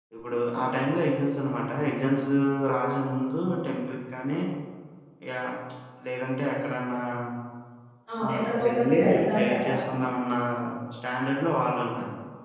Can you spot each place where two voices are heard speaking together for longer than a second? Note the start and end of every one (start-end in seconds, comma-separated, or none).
8.2-9.7